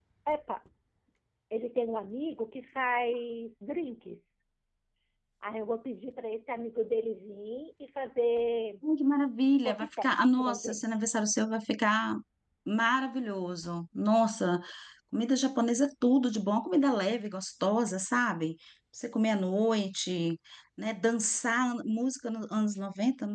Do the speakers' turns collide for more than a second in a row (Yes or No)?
Yes